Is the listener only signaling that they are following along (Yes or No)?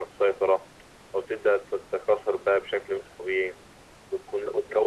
Yes